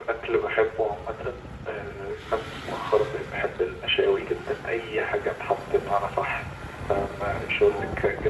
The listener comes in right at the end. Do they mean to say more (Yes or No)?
No